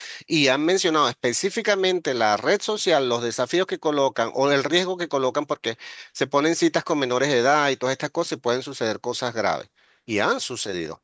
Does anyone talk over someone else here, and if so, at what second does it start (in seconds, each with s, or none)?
none